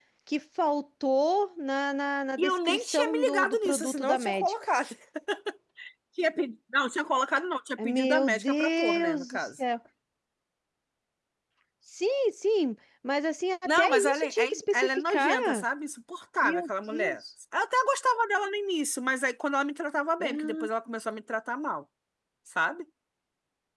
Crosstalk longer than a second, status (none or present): present